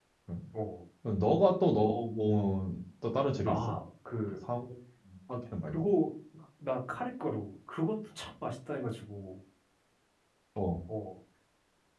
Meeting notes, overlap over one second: none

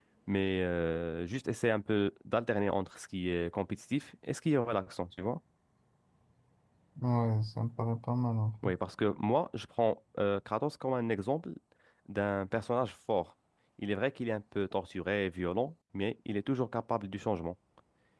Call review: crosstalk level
none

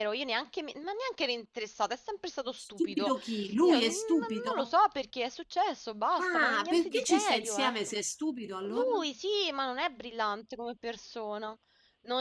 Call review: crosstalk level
present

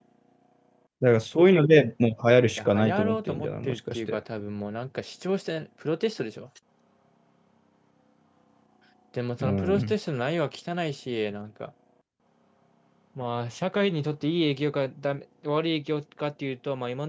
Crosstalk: present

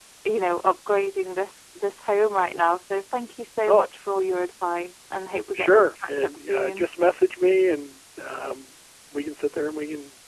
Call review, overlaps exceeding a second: present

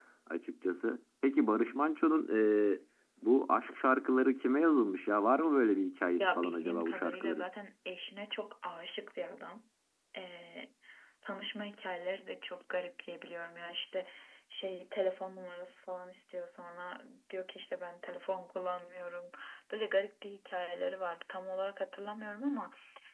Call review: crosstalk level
present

